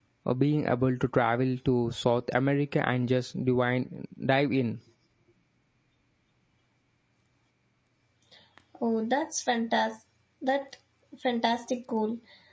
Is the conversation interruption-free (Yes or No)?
Yes